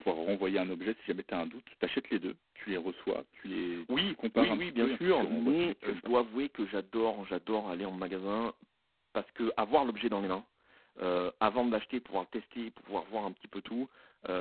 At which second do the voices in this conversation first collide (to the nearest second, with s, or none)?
4 s